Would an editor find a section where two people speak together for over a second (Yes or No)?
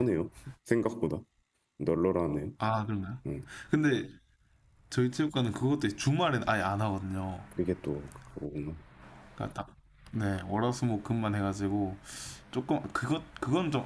No